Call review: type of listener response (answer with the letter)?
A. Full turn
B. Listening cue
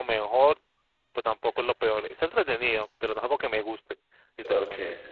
A